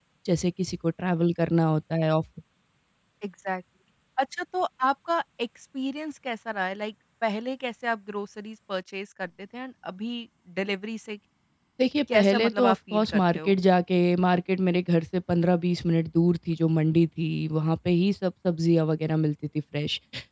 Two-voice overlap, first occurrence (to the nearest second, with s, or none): 12 s